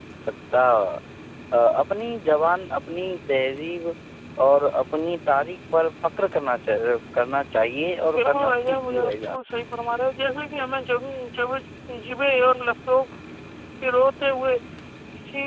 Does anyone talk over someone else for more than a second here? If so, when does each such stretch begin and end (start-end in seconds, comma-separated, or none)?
8.2-9.4